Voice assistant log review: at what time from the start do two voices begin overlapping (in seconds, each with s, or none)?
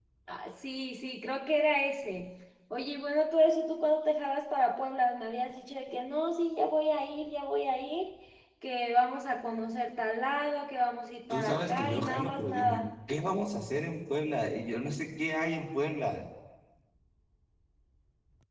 11.3 s